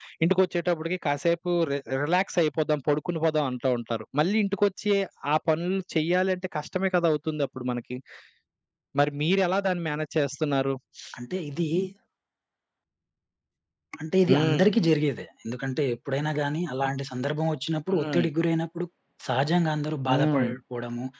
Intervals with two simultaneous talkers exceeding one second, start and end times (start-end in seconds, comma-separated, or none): none